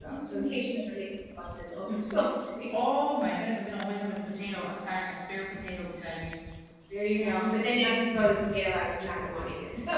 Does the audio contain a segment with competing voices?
Yes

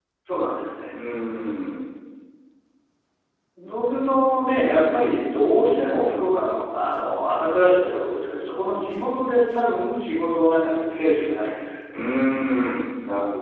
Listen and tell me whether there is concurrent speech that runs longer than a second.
No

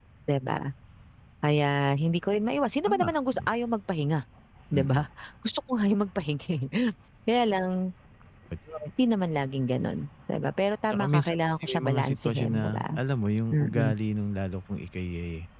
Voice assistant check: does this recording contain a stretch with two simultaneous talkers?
Yes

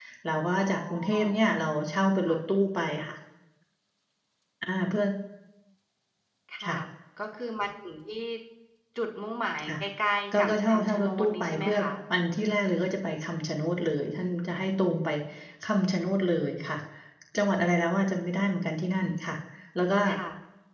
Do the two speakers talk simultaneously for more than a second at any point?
Yes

